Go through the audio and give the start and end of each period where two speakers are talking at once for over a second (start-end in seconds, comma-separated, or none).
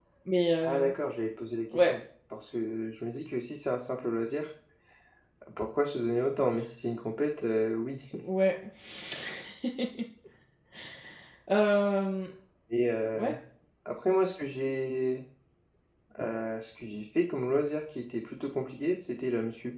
none